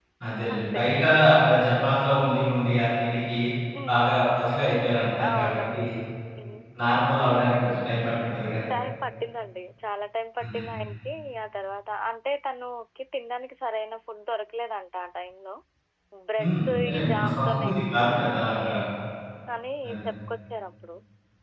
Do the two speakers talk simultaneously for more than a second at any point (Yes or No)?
Yes